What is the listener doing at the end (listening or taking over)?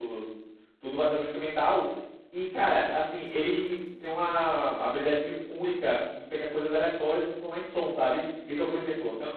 listening